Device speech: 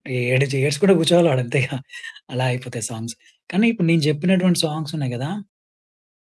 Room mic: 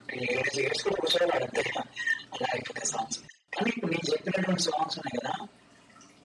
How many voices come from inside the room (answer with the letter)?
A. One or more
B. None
B